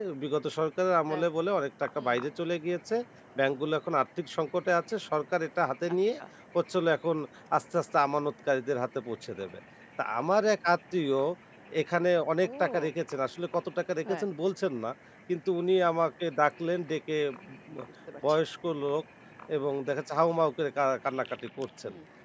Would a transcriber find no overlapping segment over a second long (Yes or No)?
Yes